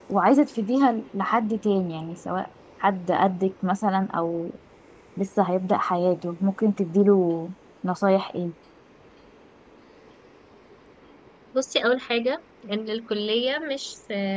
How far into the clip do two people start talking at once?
none

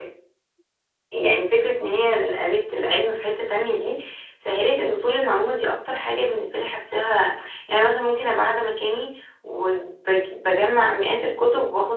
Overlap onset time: none

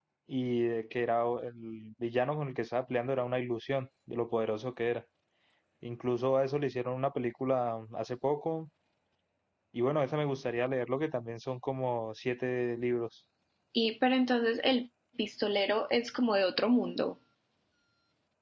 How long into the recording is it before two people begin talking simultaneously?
none

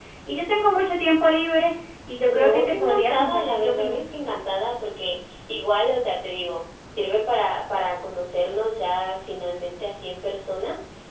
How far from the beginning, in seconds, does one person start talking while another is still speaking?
2.3 s

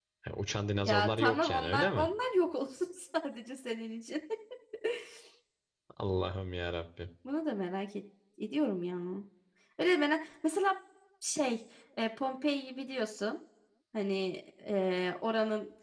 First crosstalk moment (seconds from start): 0.8 s

